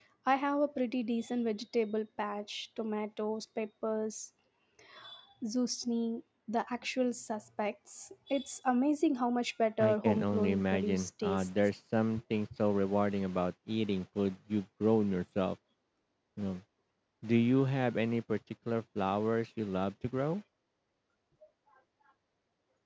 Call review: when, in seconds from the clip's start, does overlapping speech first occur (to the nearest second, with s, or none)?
10 s